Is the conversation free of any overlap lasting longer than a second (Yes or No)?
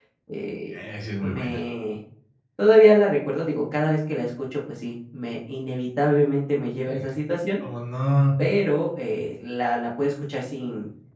Yes